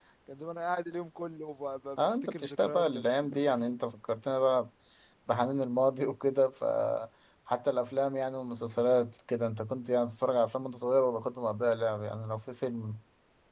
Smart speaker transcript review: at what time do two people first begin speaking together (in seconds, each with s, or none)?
2.0 s